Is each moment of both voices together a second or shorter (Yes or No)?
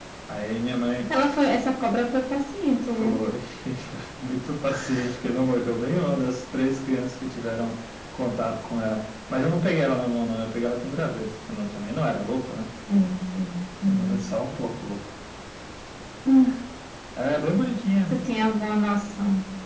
Yes